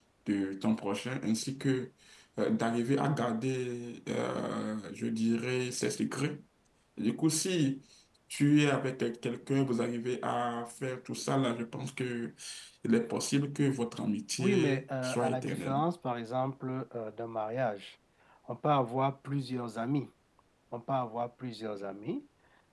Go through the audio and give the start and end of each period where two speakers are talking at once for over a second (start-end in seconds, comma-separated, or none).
14.4-15.8